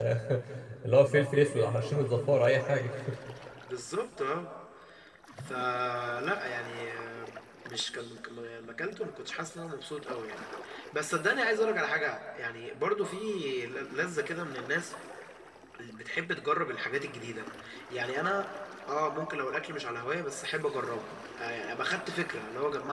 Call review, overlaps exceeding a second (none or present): none